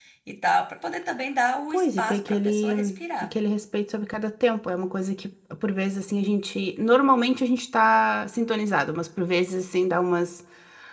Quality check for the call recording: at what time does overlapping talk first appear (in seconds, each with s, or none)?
1.7 s